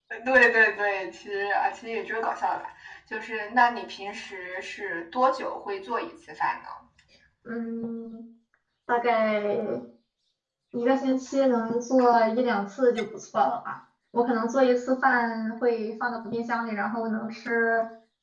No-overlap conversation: Yes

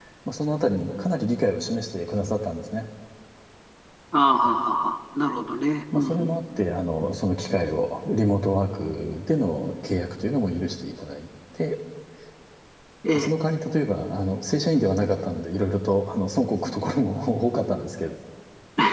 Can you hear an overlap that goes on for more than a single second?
No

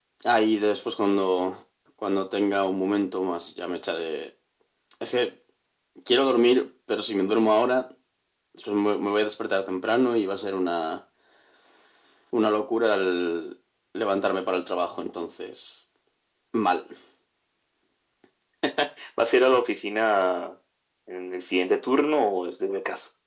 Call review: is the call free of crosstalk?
Yes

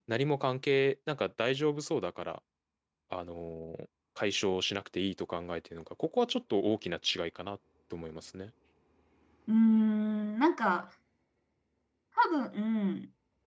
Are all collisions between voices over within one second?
Yes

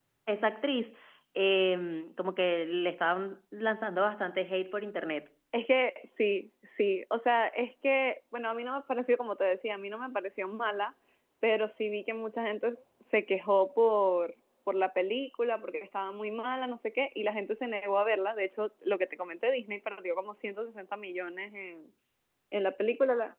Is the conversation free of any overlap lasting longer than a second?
Yes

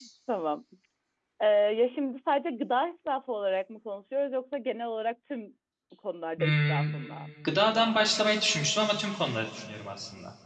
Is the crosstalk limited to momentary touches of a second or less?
Yes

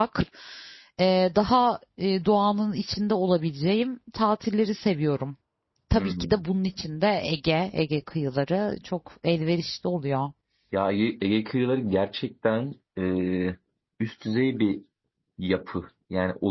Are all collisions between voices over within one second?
Yes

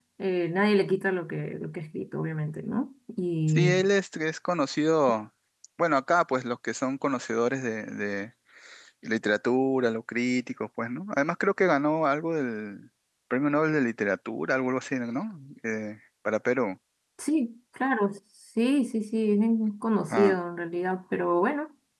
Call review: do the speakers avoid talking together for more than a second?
Yes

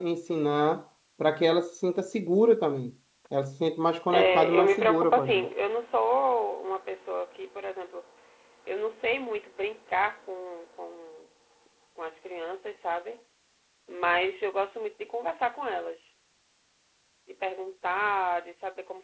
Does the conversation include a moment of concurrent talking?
Yes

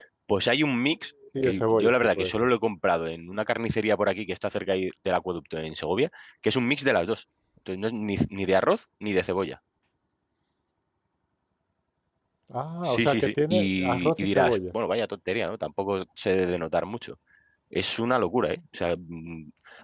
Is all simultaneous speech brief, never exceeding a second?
No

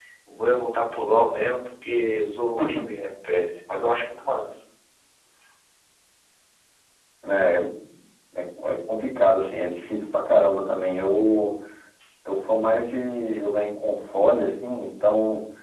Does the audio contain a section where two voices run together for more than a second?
No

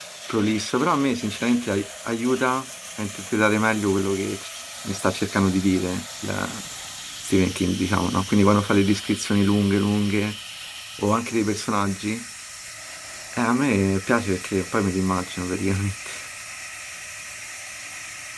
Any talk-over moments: No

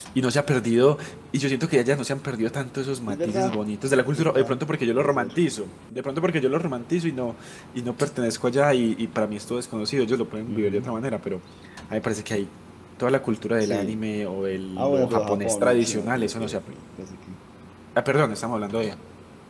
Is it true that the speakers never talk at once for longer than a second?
No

